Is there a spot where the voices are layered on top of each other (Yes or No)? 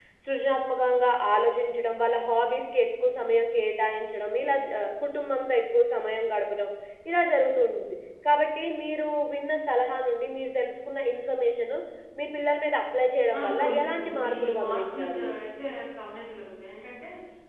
Yes